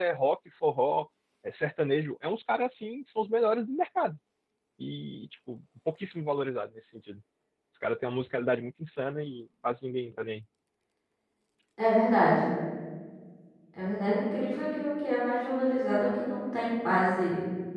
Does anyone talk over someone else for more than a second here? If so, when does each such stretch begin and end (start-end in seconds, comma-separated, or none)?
none